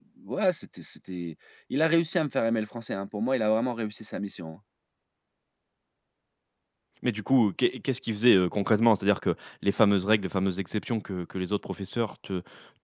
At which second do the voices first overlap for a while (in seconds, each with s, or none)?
none